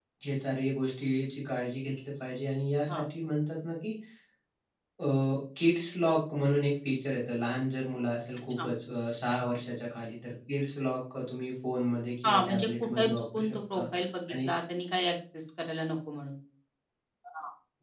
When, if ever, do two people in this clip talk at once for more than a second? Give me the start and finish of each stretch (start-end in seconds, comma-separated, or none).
12.2-13.8